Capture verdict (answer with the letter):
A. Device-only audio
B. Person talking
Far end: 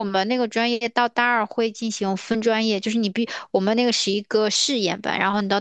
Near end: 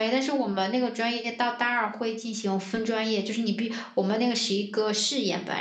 A